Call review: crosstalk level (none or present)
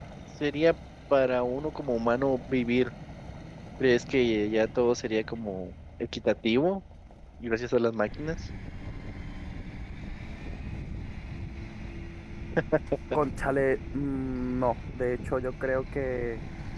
none